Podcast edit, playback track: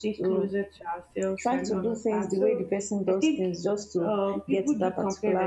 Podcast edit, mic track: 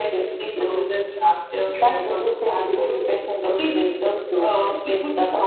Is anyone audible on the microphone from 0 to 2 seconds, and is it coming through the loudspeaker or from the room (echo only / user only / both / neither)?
echo only